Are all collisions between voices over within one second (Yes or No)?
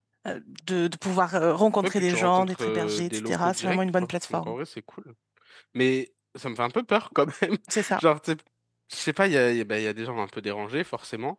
No